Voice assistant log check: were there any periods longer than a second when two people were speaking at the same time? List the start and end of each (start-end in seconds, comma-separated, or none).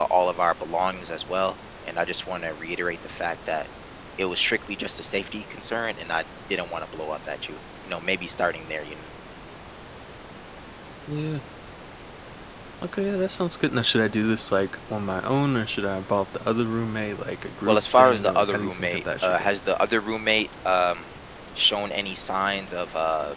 17.7-19.5